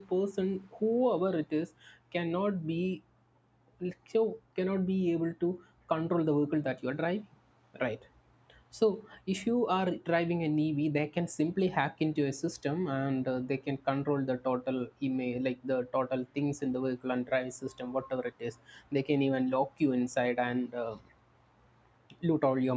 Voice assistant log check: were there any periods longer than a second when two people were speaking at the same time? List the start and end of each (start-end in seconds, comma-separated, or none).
none